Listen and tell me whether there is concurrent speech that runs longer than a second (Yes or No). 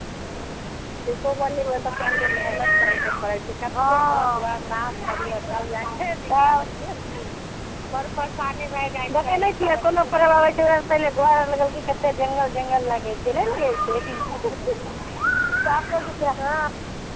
Yes